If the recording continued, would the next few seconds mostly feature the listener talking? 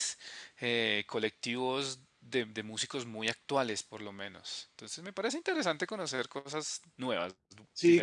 Yes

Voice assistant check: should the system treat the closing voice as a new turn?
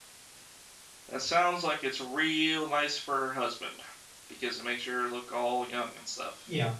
Yes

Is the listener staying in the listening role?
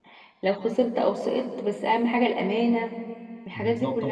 No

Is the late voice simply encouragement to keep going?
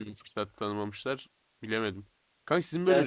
Yes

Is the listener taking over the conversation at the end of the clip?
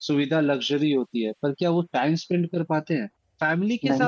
No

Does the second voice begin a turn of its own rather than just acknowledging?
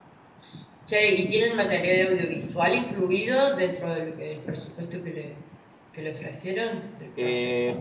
Yes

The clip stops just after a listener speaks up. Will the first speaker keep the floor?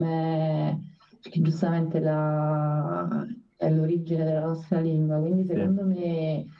Yes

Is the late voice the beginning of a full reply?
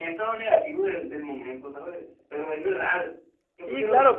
Yes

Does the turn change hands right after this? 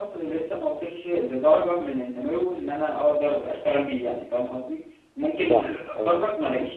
No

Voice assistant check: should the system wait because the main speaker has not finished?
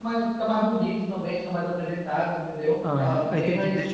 No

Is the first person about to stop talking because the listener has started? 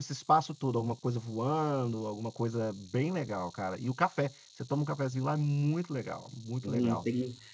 Yes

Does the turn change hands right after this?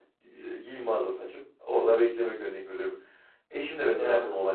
No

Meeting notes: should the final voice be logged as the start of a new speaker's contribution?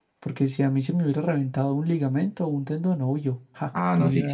Yes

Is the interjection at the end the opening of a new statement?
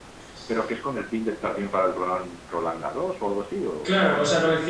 Yes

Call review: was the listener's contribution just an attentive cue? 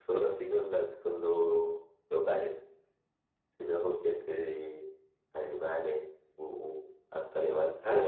No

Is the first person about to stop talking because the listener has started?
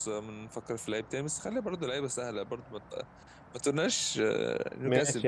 Yes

